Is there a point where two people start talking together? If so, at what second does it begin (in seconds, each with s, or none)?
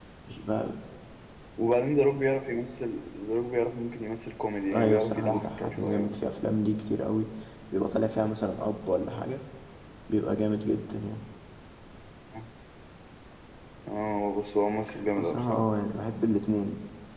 4.7 s